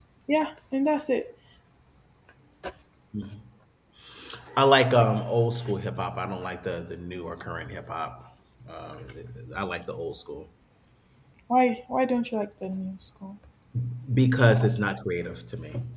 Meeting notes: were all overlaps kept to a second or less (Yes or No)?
Yes